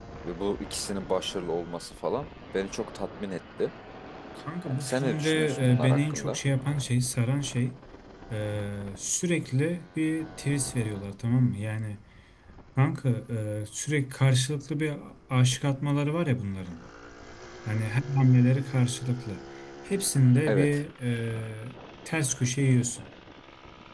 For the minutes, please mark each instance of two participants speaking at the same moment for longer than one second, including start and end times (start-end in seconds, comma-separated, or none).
4.7-6.4